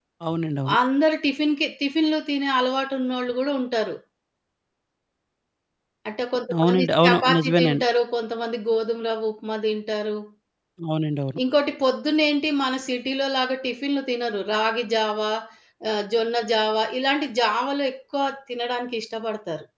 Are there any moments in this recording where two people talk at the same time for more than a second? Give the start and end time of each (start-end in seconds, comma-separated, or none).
6.6-7.8